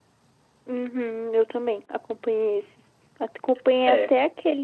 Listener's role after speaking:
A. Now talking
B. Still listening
B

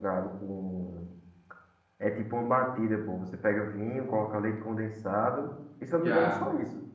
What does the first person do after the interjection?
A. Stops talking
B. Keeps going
A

